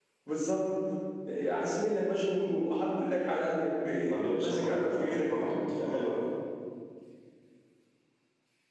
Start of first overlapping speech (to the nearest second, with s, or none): 4 s